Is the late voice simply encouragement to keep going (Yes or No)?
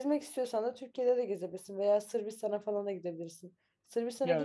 Yes